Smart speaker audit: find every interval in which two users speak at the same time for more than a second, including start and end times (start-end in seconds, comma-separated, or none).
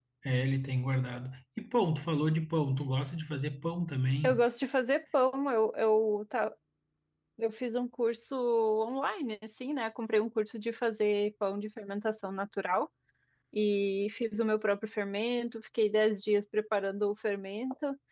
none